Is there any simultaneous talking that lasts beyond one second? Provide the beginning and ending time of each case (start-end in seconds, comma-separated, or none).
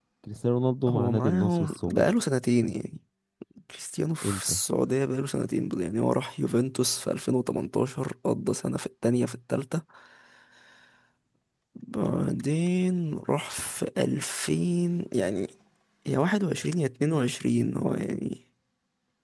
0.9-2.1